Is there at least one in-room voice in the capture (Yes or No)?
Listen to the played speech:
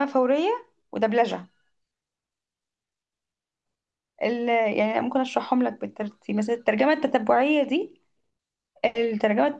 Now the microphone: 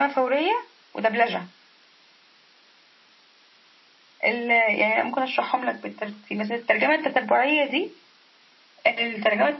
No